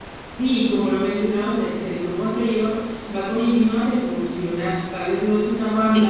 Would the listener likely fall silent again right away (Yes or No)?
Yes